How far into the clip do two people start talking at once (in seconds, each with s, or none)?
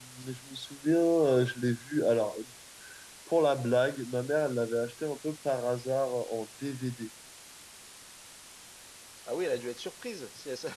none